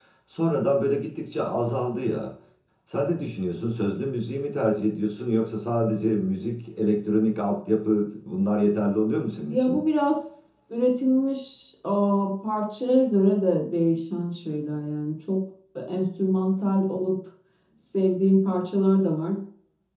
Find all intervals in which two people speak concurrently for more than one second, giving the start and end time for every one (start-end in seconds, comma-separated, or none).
none